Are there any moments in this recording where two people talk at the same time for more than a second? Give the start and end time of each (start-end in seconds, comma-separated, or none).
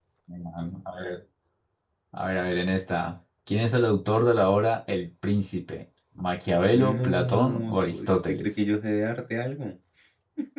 6.7-8.5